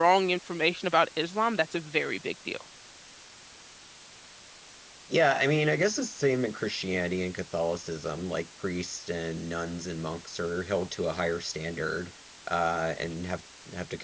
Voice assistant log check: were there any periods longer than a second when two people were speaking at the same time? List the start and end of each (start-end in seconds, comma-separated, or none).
none